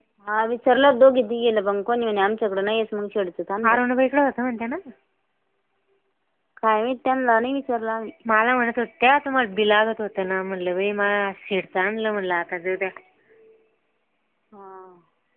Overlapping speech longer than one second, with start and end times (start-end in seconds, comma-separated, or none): none